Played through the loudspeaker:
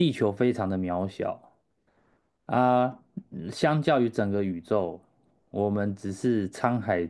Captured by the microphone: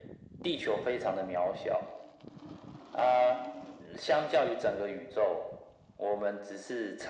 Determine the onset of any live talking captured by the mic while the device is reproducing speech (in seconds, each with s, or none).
none